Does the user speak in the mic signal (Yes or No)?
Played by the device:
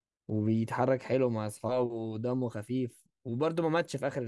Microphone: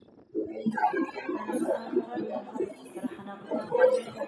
Yes